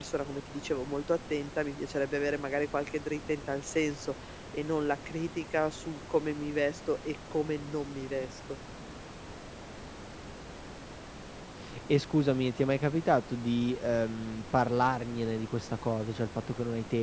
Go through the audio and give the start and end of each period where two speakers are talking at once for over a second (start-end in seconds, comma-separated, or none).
none